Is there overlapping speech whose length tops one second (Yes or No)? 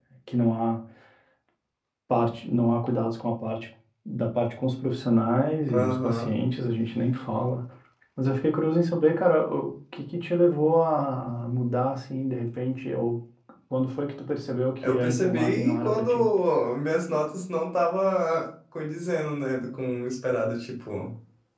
Yes